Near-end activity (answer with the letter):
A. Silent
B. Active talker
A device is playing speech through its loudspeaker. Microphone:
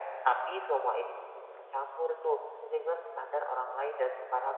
A